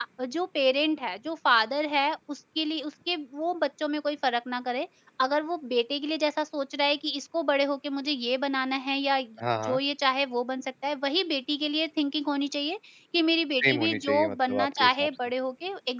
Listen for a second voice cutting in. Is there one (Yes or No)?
Yes